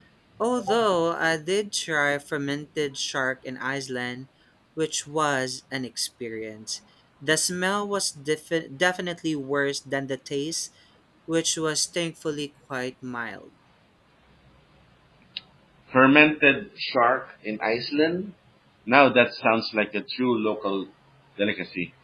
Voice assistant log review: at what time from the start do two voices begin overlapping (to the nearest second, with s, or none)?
none